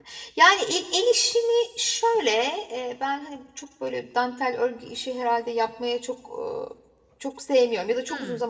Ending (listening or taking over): listening